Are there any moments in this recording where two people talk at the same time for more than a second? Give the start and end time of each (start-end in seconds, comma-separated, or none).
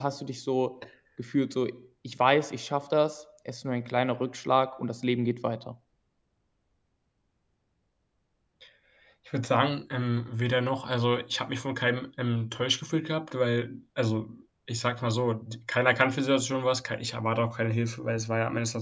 none